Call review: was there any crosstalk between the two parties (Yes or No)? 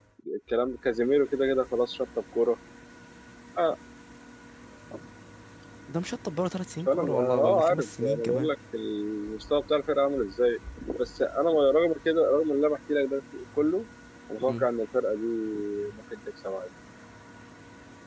Yes